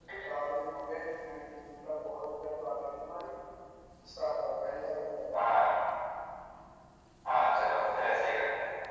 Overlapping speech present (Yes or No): No